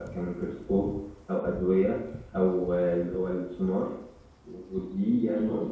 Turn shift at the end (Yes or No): No